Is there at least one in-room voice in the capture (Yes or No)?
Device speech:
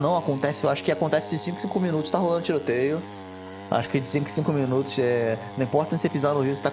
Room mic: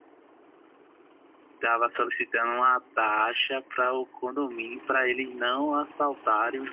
Yes